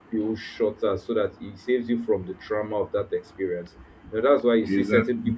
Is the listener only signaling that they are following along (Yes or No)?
Yes